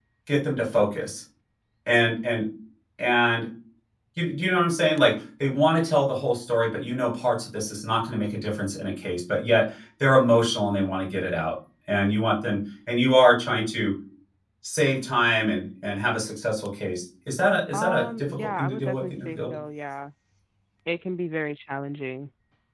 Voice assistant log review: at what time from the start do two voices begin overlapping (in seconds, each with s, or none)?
17.7 s